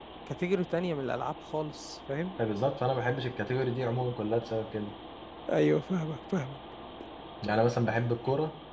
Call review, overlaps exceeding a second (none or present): none